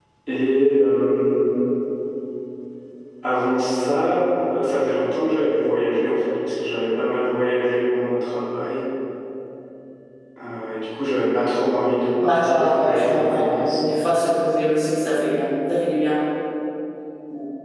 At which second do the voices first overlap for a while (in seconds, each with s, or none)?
12.2 s